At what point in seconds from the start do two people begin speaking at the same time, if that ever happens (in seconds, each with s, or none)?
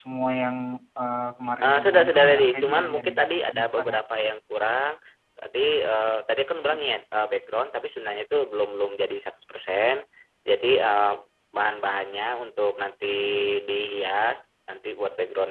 1.6 s